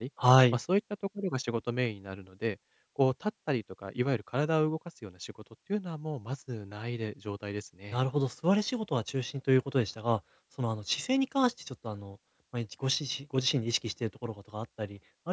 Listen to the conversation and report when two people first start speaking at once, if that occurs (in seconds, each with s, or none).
none